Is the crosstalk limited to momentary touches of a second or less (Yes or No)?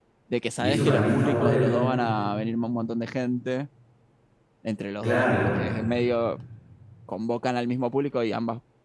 No